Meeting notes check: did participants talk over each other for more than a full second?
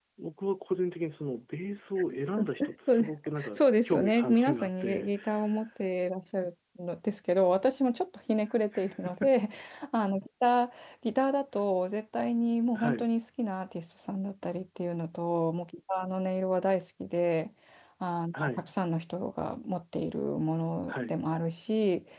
Yes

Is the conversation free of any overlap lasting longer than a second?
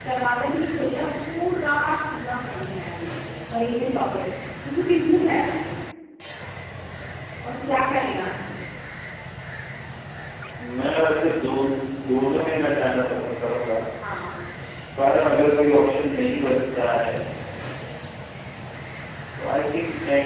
Yes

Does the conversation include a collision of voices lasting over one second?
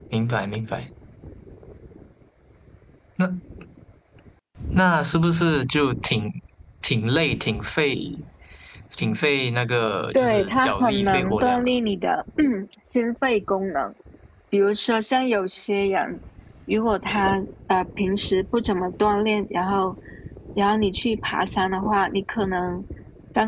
Yes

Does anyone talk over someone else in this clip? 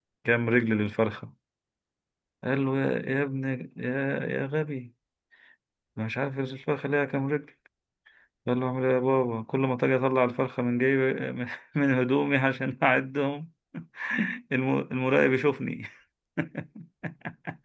No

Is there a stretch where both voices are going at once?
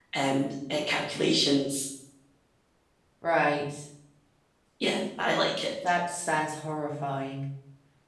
No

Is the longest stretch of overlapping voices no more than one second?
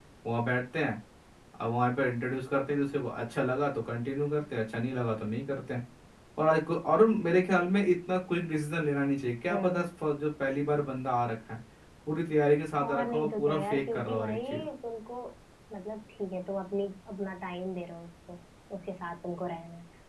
No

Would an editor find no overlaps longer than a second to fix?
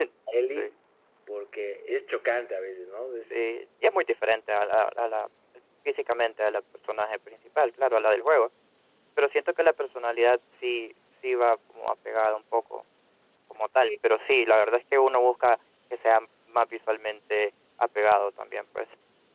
Yes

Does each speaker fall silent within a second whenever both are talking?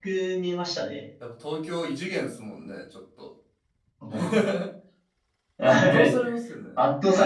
Yes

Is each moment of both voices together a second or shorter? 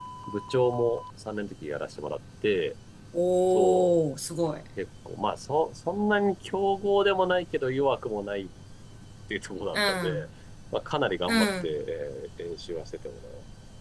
Yes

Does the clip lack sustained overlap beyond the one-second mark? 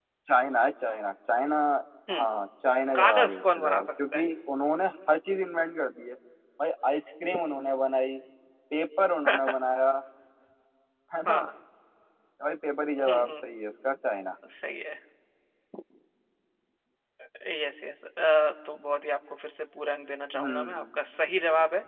No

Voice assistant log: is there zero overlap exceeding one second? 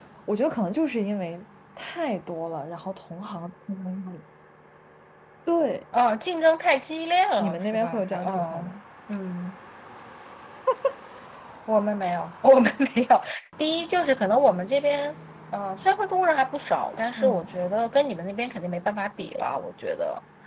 No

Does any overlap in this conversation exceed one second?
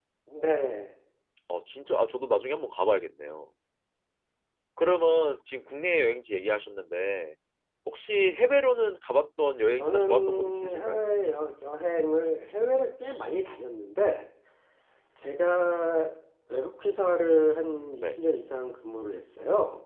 Yes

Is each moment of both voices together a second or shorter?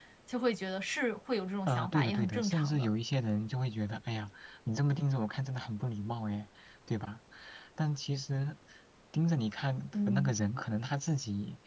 No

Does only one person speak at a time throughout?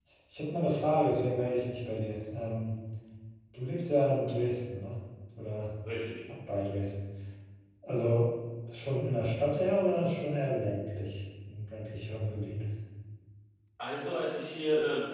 Yes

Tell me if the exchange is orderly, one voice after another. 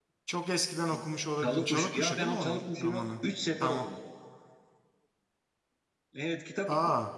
No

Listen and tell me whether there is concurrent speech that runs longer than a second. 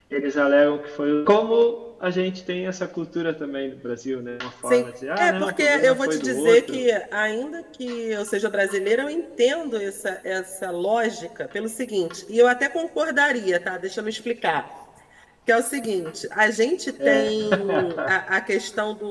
Yes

